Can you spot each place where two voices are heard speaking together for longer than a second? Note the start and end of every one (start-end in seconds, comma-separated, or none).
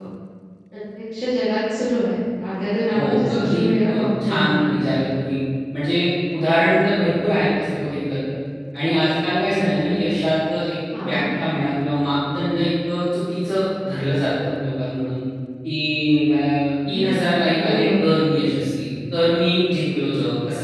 2.9-4.7